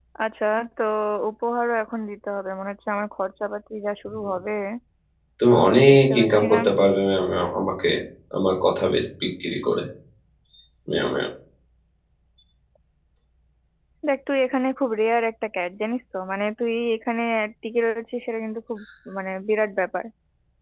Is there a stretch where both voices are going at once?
Yes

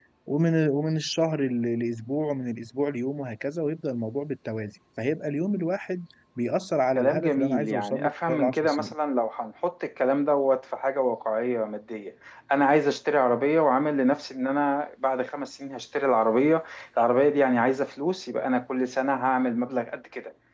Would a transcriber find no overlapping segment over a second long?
No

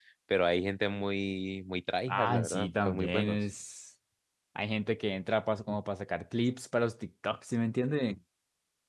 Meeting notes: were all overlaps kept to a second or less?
No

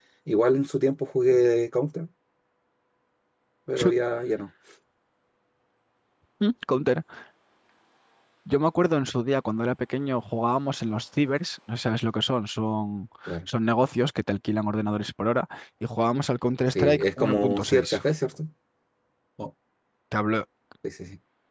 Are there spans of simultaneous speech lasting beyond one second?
Yes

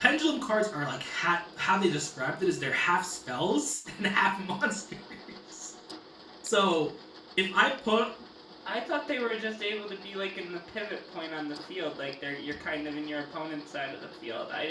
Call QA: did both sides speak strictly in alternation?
Yes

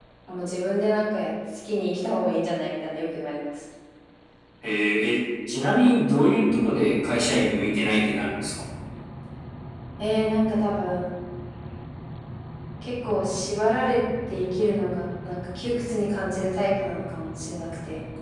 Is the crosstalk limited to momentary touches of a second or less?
Yes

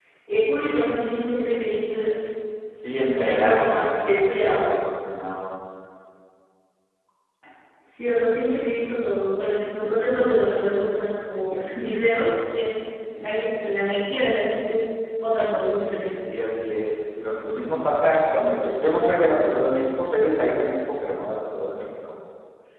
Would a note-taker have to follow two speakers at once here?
Yes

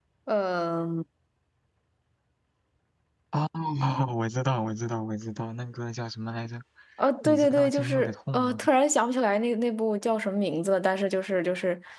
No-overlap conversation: No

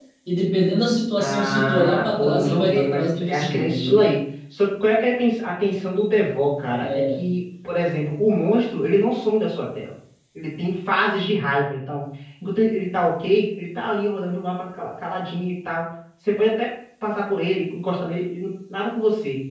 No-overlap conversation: No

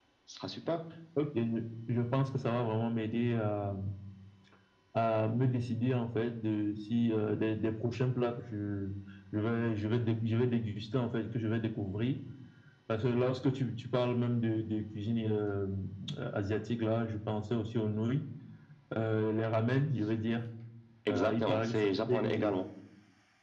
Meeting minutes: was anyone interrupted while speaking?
Yes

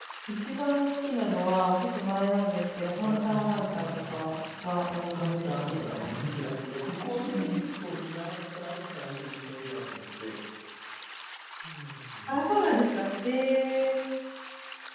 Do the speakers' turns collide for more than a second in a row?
Yes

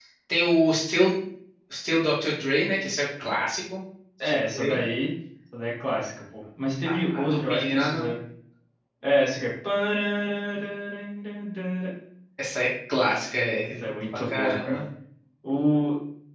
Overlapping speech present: Yes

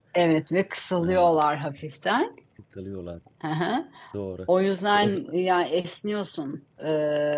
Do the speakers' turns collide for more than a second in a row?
No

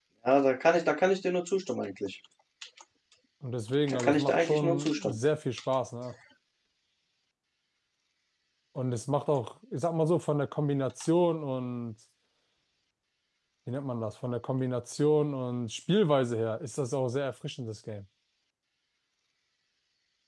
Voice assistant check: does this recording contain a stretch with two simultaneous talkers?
Yes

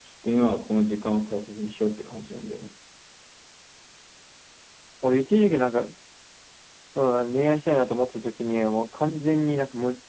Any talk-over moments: No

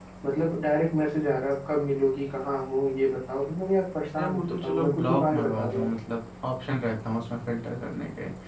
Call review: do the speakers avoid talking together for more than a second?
No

